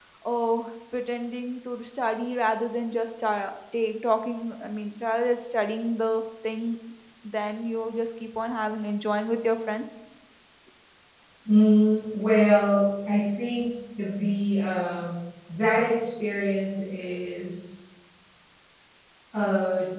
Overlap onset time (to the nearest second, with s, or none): none